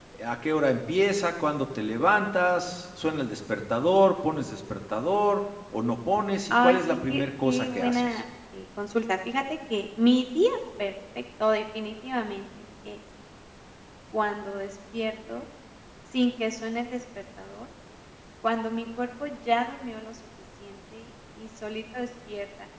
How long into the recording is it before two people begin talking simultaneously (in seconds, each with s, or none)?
6.5 s